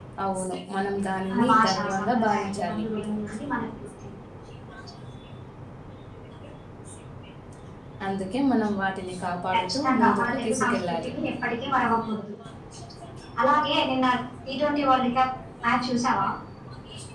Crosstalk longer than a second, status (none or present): present